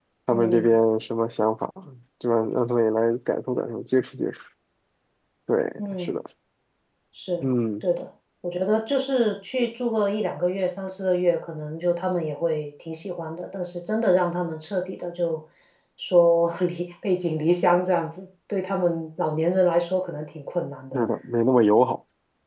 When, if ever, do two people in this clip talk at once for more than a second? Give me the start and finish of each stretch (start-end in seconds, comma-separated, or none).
none